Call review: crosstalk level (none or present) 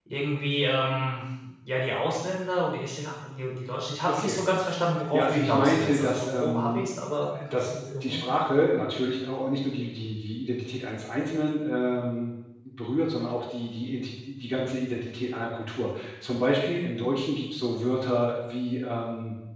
present